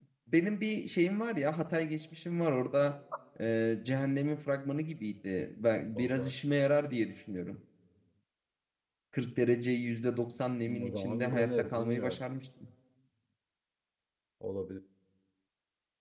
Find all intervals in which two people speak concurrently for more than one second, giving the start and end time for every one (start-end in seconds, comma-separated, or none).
10.8-12.2